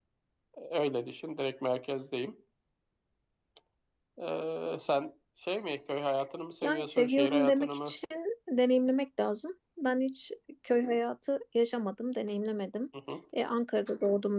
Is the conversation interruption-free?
No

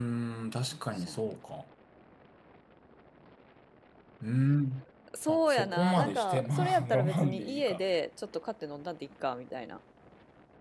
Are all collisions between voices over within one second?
No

